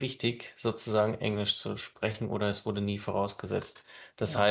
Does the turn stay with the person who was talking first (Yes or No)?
Yes